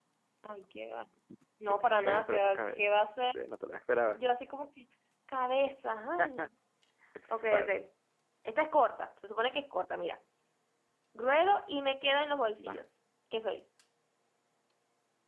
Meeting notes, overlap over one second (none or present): present